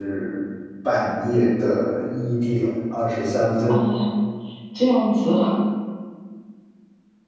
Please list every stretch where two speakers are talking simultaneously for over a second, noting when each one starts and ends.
none

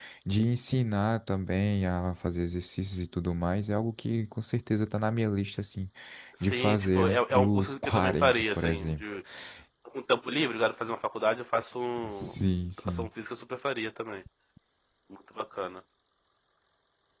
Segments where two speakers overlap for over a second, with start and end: 6.5-9.1

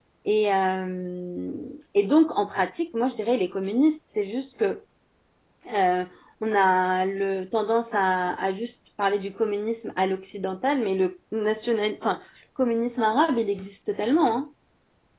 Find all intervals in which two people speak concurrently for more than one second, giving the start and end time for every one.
none

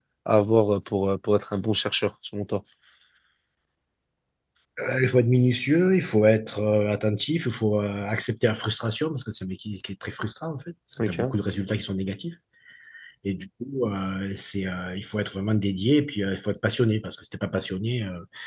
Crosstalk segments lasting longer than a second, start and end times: none

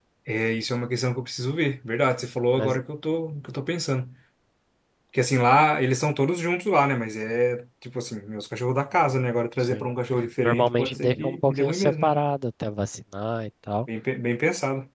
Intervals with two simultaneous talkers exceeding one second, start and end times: 10.4-12.1

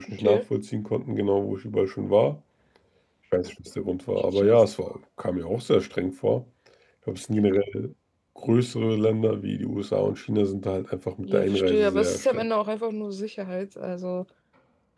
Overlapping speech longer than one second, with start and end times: 11.2-12.4

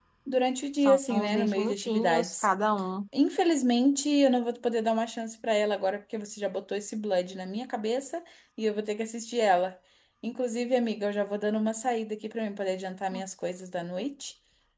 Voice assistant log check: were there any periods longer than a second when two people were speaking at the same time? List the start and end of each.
0.8-2.5

